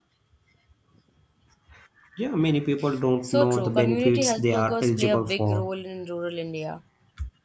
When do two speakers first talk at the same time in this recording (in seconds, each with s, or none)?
3.2 s